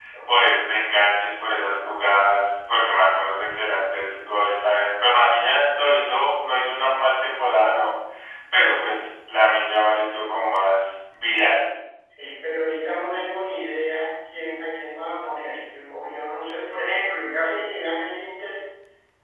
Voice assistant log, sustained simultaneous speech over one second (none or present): none